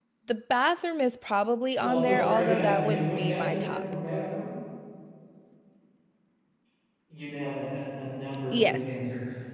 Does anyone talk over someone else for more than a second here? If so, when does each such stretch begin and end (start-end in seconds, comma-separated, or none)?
1.8-3.8